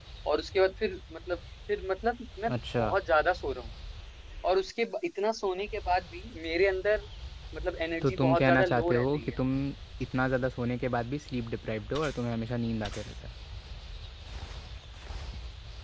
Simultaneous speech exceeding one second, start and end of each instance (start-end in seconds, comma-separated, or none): 8.0-9.3